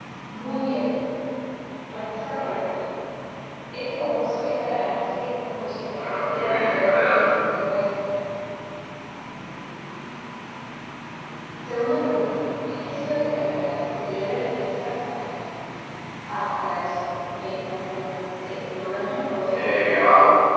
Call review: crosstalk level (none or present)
present